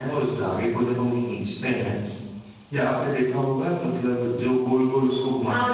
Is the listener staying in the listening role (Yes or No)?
No